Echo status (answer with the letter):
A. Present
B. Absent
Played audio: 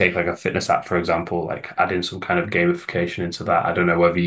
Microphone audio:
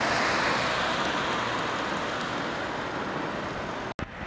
B